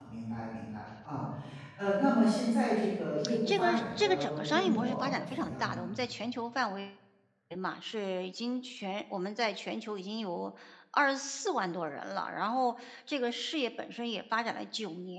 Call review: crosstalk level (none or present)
present